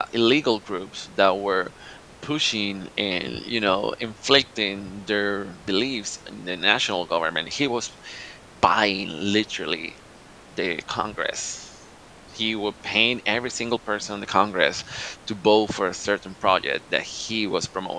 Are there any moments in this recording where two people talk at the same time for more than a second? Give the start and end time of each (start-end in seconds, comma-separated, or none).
none